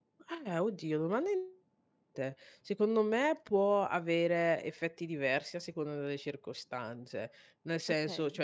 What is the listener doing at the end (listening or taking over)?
listening